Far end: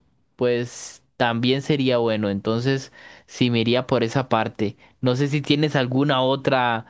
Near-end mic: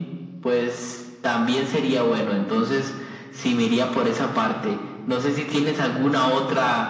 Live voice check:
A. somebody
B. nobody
B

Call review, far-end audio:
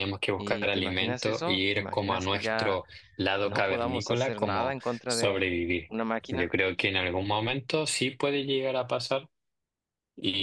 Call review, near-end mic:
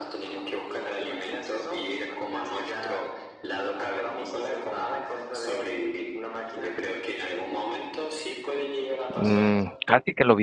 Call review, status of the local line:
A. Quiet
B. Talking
B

